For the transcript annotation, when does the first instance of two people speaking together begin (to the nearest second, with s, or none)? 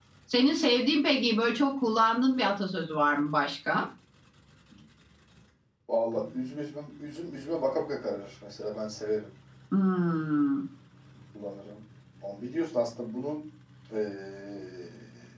none